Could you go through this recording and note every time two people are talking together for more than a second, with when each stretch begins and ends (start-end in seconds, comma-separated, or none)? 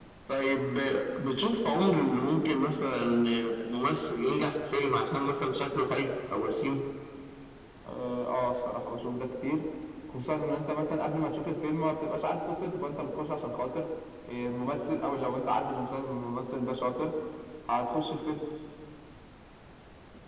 none